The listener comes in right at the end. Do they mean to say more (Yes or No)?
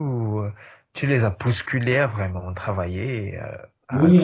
Yes